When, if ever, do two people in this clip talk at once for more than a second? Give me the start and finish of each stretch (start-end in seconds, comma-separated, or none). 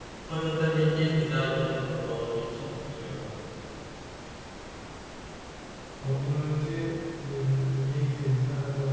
none